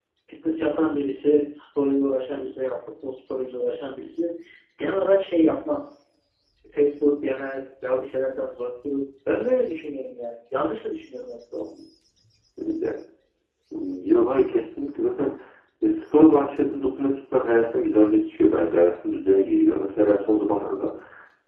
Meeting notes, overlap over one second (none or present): none